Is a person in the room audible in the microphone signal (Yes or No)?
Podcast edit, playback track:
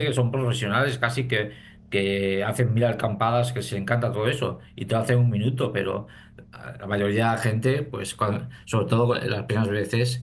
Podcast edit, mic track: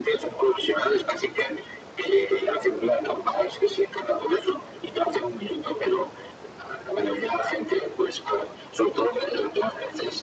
No